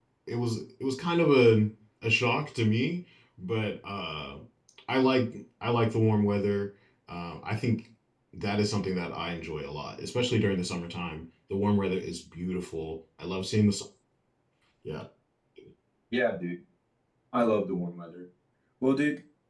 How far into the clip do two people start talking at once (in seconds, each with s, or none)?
none